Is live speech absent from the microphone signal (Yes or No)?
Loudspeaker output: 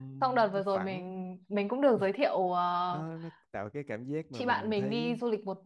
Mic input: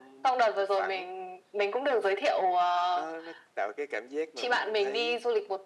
Yes